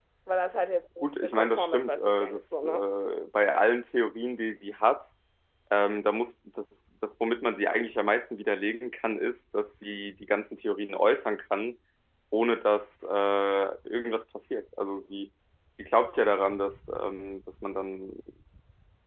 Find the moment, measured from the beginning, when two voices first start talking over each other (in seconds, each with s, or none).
1.0 s